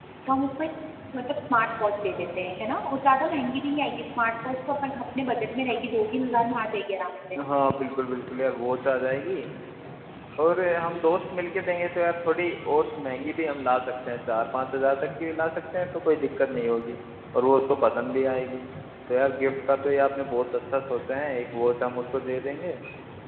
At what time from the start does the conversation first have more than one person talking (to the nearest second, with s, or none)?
none